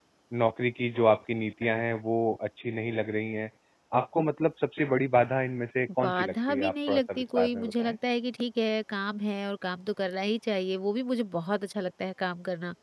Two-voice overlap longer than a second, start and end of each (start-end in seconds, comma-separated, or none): 6.0-8.0